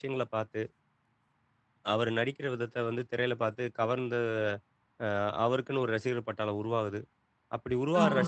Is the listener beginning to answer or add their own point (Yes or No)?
No